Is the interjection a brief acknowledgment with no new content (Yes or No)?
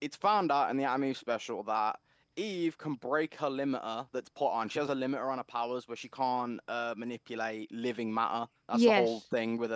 Yes